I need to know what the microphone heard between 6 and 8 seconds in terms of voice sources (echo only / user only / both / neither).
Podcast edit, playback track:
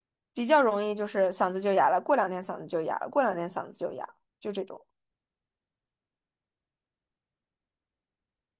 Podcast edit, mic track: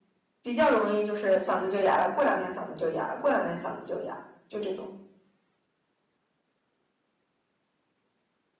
neither